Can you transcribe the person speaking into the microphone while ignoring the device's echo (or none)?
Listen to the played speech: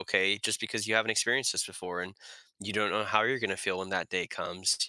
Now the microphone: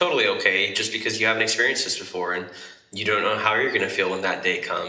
none